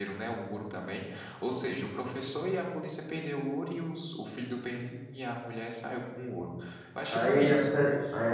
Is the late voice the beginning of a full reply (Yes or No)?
Yes